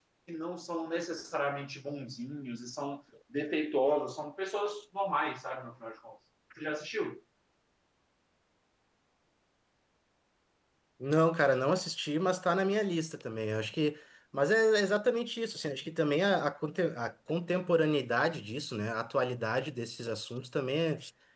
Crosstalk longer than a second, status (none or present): none